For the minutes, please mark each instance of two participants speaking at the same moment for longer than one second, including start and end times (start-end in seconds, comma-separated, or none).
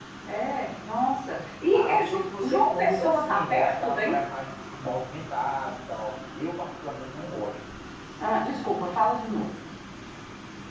1.7-4.2